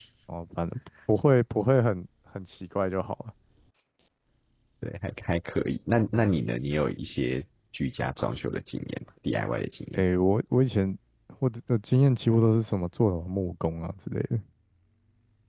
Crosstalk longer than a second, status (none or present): none